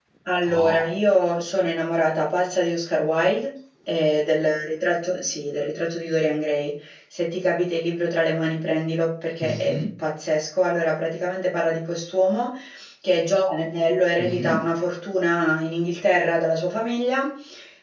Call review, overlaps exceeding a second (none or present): none